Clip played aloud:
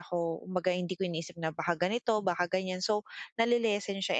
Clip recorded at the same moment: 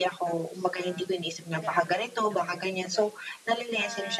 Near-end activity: present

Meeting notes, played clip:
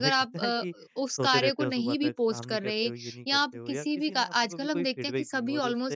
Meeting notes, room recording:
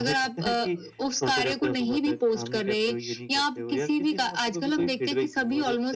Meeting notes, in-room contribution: none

